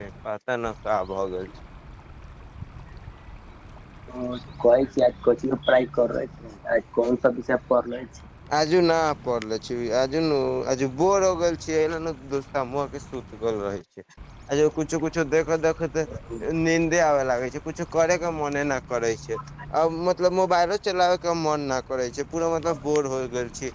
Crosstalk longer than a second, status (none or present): none